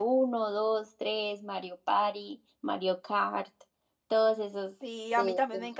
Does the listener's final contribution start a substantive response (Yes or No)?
Yes